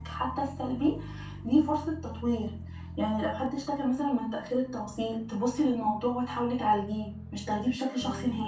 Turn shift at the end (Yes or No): Yes